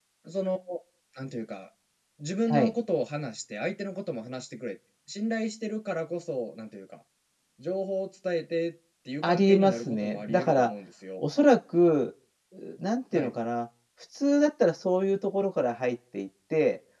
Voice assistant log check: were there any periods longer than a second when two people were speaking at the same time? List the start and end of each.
9.2-10.7

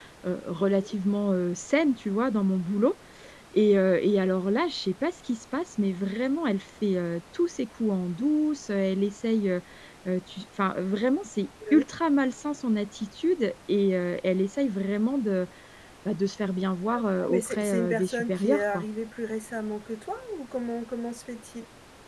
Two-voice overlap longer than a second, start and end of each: 16.9-18.8

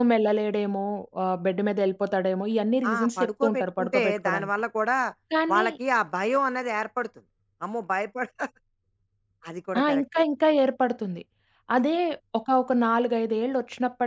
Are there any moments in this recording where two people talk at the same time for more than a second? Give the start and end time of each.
2.9-4.5

